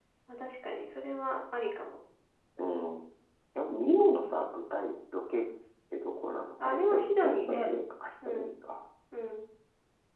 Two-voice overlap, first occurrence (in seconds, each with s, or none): 6.6 s